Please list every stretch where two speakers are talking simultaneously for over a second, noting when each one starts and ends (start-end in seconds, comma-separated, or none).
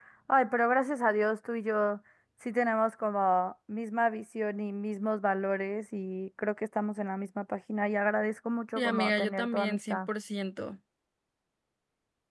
8.8-10.0